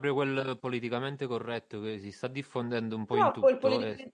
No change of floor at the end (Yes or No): No